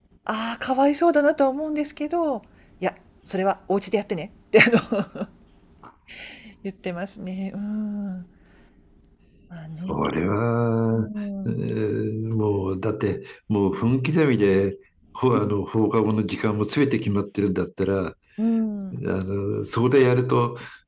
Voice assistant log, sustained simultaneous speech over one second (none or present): none